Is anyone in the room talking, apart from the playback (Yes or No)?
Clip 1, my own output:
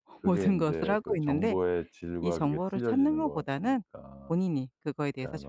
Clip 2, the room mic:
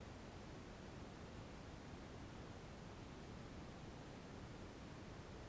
No